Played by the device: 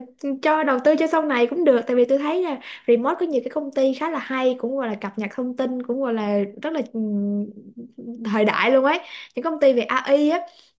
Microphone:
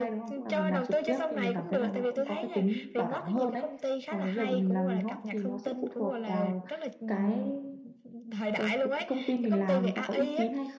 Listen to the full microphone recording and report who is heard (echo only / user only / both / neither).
both